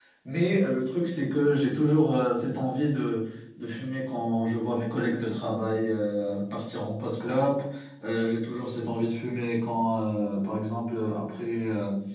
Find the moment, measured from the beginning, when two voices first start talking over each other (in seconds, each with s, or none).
none